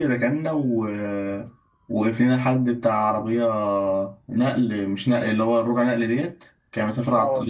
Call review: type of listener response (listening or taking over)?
listening